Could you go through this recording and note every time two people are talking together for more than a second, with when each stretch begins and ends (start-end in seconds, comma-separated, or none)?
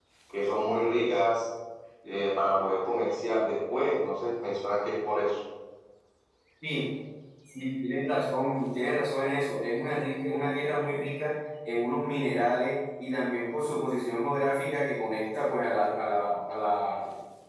none